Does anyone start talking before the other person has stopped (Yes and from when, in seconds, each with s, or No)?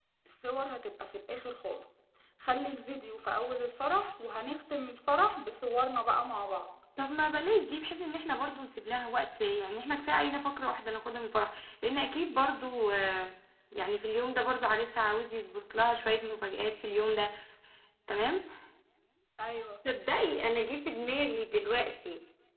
No